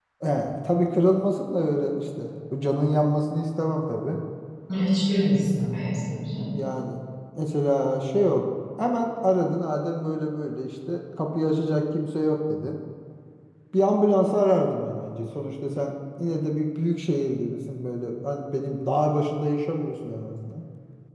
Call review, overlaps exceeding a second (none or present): none